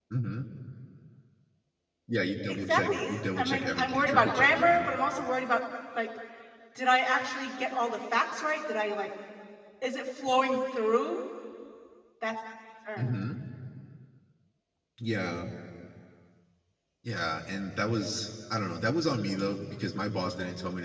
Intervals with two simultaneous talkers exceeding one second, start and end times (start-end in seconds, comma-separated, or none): 2.5-4.9